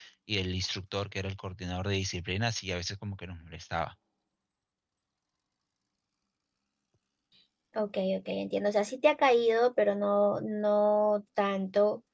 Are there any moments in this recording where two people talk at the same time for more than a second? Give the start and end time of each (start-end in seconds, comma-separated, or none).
none